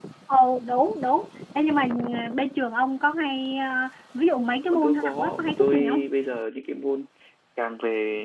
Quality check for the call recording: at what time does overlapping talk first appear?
4.7 s

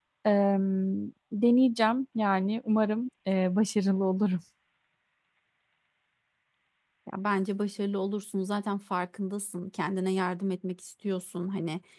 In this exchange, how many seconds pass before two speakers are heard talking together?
none

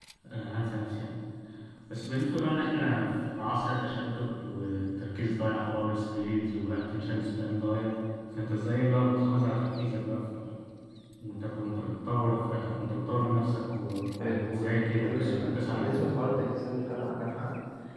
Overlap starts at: 14.2 s

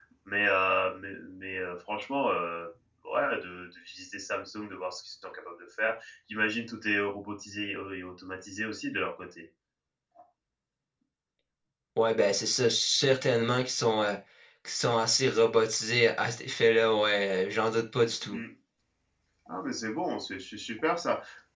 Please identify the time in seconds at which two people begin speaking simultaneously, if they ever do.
none

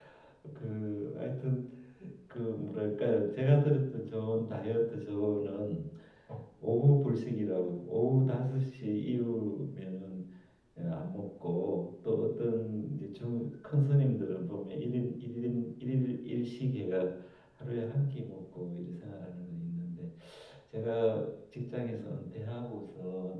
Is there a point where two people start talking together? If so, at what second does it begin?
none

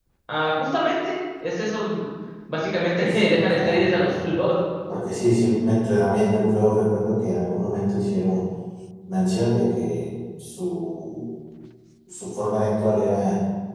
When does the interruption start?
3.1 s

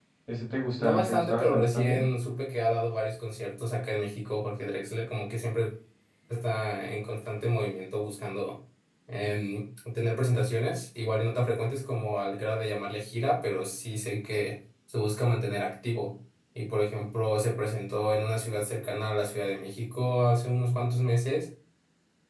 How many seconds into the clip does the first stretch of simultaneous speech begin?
0.8 s

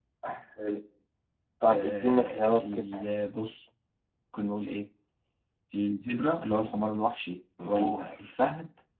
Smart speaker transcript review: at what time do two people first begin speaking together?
1.7 s

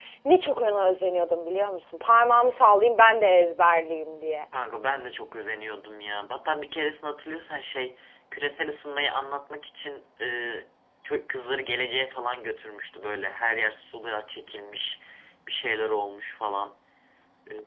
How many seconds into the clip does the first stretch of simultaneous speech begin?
none

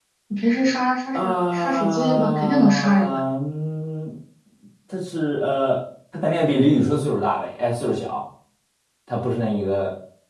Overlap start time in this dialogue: 1.1 s

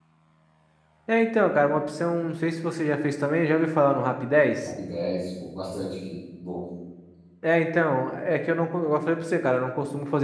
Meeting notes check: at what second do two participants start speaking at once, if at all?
none

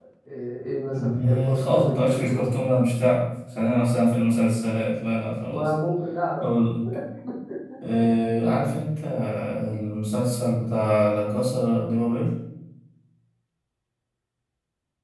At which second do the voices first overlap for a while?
0.9 s

